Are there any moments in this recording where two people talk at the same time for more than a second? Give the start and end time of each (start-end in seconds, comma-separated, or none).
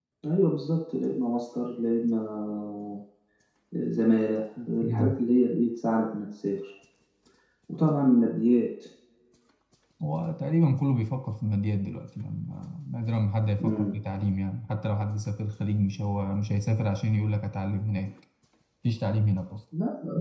none